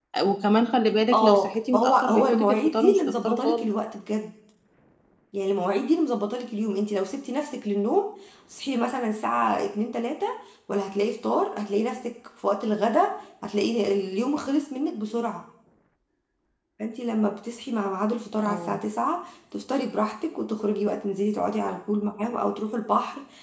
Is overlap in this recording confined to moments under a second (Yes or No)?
No